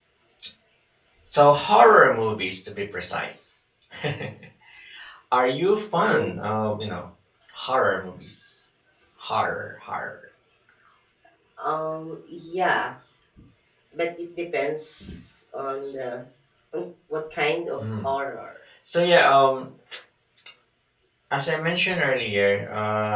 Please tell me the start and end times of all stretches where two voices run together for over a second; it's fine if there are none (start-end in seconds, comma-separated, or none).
none